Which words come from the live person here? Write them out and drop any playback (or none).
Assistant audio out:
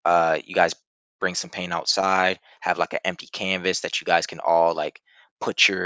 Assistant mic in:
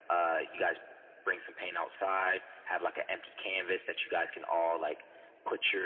none